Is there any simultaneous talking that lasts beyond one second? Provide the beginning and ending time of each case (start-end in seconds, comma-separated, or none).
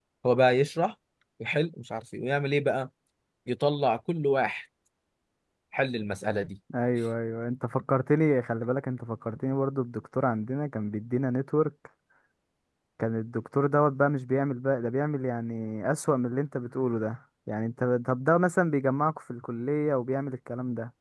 none